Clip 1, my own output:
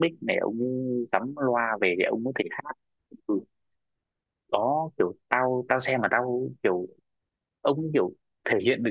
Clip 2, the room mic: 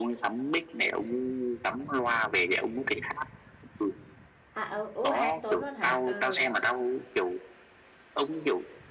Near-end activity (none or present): present